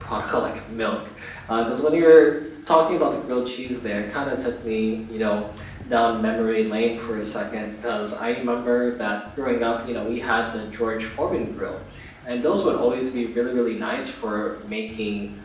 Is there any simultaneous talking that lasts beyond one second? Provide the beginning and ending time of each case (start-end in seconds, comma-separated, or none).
none